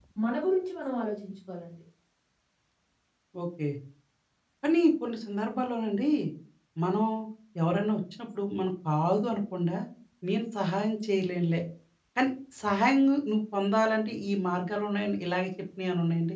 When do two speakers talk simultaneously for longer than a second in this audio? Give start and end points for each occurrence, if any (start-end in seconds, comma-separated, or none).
none